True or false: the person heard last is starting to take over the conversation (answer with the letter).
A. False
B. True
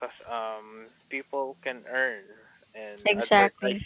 A